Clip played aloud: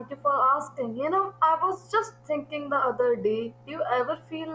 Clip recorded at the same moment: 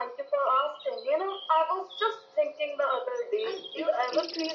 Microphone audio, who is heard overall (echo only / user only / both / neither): both